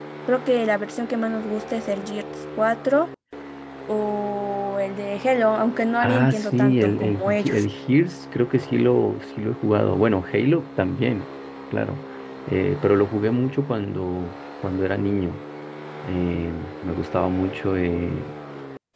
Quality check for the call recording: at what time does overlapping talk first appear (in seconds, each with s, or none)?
6.0 s